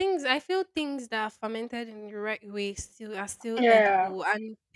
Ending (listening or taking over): listening